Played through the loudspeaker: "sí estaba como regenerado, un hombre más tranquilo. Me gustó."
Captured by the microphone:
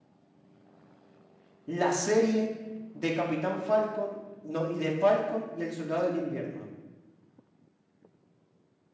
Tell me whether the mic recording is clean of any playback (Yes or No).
Yes